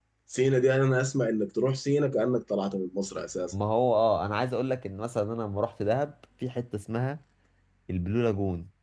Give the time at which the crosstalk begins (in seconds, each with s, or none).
none